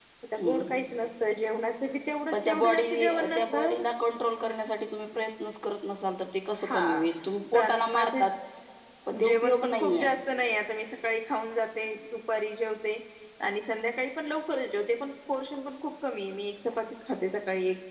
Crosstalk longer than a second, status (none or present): present